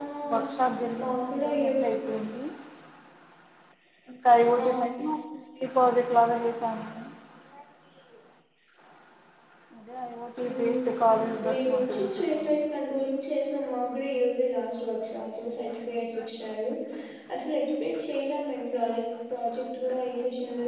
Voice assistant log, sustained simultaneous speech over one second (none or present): present